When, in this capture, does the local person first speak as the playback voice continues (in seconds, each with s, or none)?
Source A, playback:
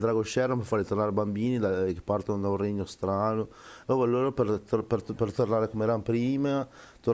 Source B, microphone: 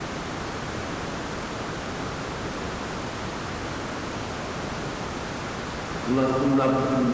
6.0 s